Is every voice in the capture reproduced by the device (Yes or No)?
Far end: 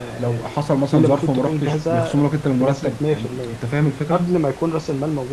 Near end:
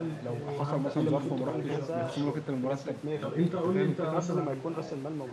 No